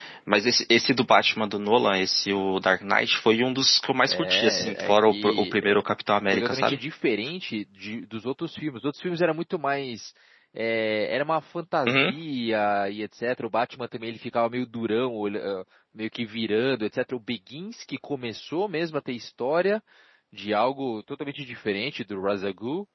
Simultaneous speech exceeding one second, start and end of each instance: 4.1-5.8

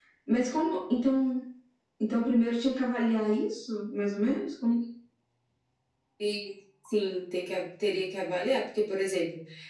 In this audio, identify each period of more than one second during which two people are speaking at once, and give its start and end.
none

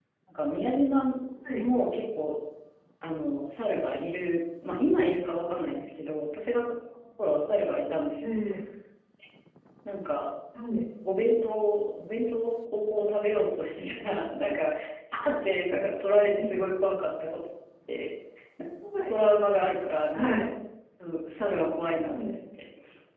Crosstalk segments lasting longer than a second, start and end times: none

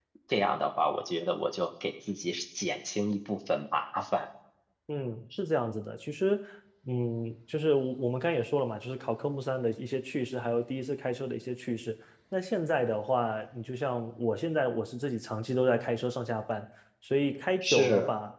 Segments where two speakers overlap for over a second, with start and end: none

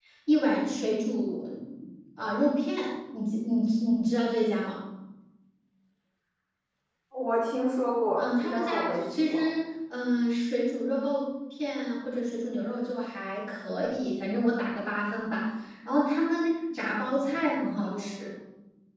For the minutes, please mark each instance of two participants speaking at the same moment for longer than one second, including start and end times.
8.2-9.4

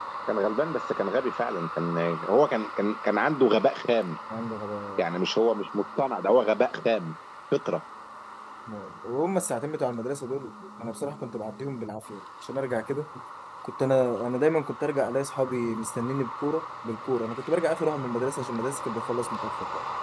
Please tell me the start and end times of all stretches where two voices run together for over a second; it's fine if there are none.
none

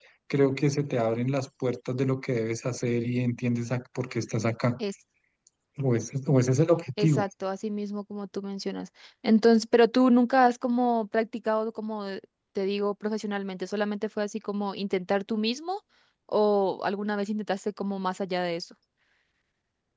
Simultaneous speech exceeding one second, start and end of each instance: none

